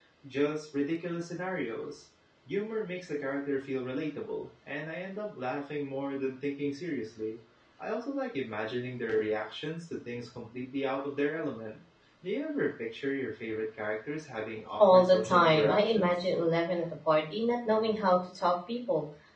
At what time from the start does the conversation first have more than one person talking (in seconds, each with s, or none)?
14.8 s